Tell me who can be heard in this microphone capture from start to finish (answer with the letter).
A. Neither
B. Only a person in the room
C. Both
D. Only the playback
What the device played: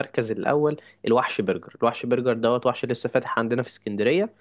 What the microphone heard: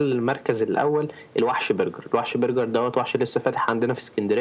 D